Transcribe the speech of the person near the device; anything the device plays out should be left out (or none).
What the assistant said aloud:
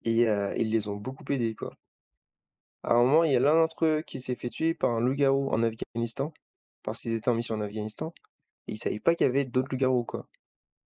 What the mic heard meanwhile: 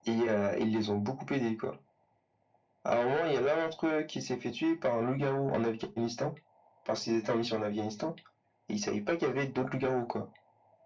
none